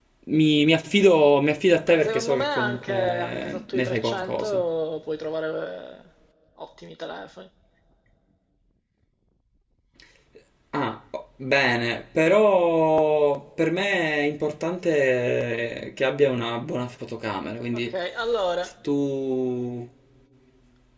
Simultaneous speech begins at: 1.9 s

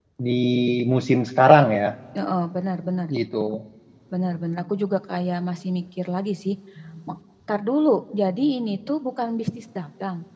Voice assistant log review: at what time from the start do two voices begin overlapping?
none

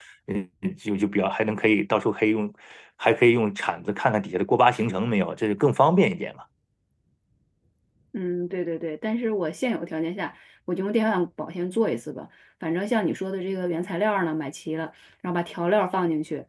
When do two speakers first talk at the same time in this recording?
none

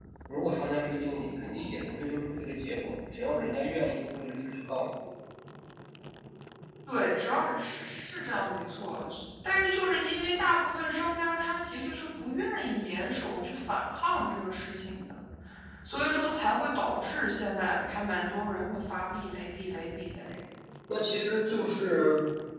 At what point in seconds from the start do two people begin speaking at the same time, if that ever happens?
none

